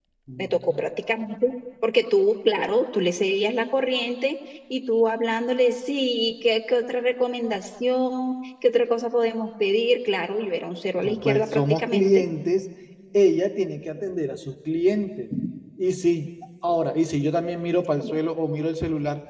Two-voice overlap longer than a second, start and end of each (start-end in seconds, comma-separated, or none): 11.0-12.2